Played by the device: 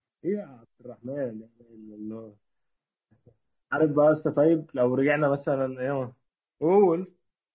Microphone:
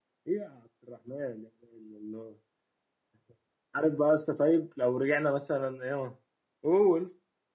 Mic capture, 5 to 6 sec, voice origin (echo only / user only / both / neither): echo only